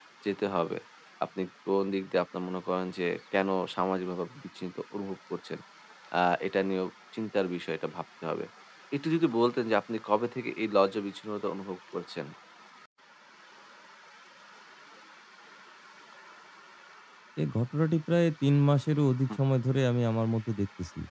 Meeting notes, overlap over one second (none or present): none